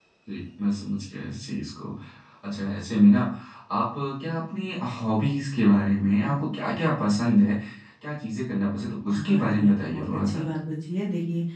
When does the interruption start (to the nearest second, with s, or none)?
9 s